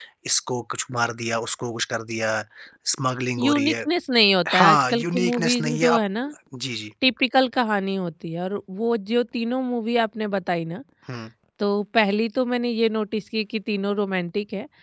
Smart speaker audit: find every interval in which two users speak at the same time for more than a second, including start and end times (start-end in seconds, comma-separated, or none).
4.5-6.1